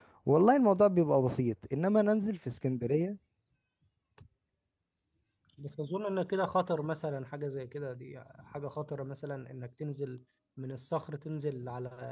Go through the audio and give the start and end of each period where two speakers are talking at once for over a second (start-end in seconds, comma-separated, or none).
none